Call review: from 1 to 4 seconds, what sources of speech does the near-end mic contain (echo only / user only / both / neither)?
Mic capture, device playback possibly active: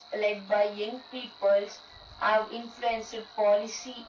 echo only